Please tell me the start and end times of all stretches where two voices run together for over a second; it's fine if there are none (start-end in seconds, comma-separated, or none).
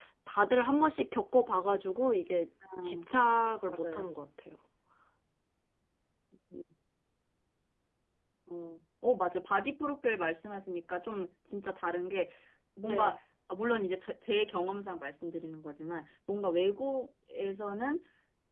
none